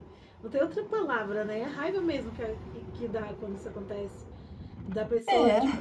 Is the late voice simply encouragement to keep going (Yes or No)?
Yes